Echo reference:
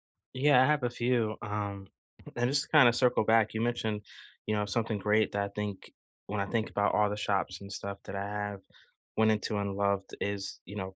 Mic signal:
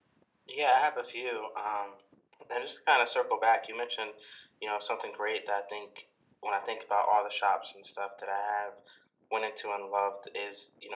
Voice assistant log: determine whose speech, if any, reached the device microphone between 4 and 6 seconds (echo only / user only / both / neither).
echo only